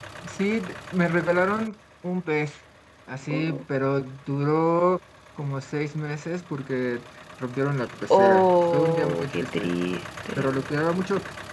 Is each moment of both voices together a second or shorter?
No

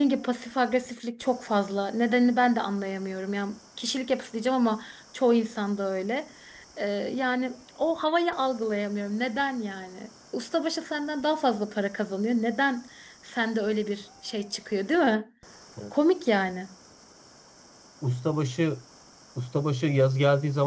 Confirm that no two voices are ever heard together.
Yes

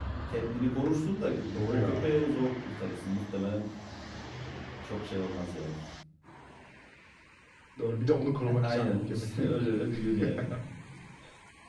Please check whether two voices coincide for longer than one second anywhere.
Yes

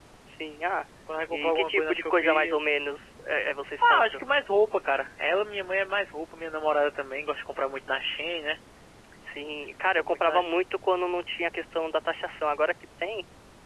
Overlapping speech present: Yes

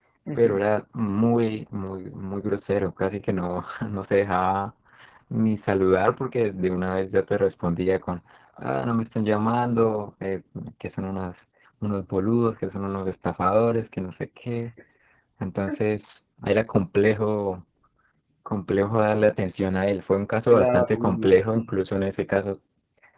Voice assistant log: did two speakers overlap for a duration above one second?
Yes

